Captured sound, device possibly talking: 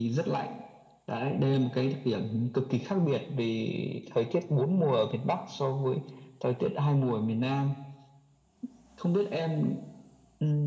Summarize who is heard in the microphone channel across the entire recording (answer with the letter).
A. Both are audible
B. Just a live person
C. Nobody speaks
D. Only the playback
D